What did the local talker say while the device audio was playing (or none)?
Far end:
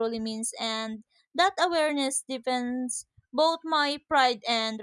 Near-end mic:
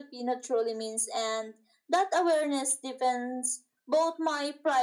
none